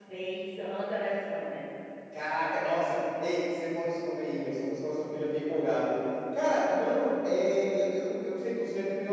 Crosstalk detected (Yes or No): No